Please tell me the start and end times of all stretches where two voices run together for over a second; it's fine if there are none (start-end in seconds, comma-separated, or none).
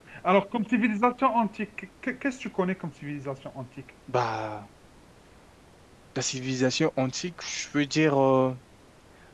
none